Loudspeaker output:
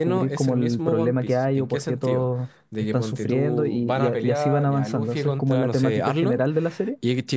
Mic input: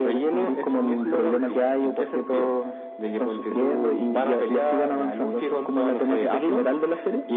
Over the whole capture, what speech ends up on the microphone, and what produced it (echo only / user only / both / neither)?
echo only